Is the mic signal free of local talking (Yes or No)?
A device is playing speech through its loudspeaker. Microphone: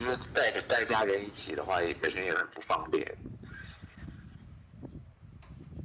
Yes